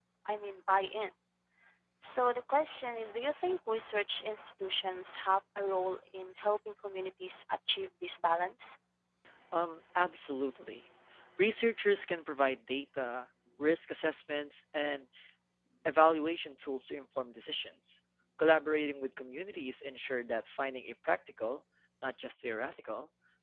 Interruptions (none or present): none